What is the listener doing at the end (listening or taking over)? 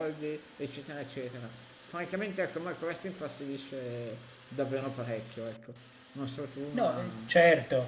taking over